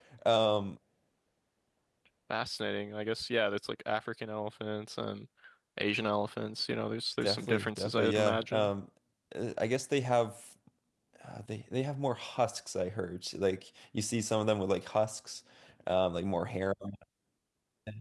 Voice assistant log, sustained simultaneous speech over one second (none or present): present